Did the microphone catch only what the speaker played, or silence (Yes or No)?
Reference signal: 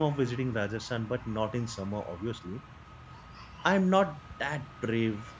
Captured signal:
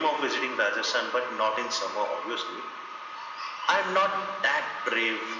Yes